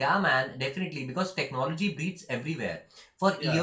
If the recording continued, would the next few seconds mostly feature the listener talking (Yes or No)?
No